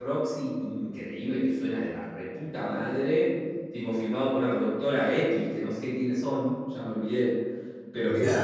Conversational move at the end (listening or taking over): listening